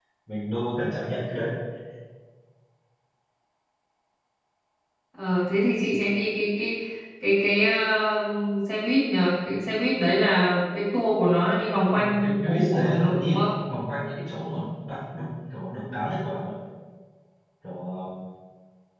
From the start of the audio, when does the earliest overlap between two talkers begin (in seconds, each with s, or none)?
12.0 s